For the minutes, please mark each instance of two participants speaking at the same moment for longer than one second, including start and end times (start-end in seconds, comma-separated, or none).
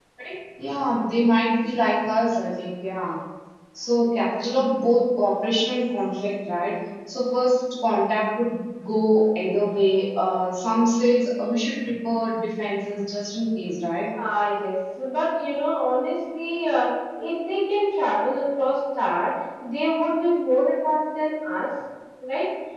none